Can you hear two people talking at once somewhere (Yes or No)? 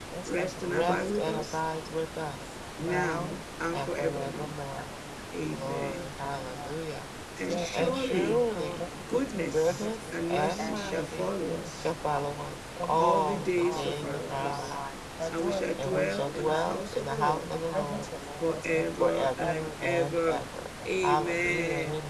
Yes